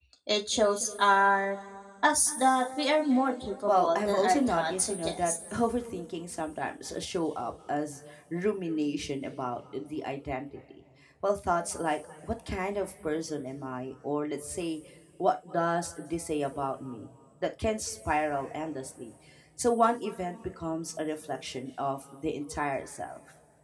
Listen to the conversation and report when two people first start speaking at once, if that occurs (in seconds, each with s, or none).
3.7 s